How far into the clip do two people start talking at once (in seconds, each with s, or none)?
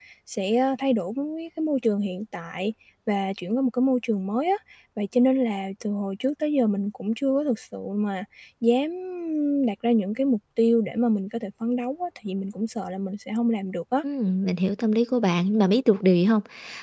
none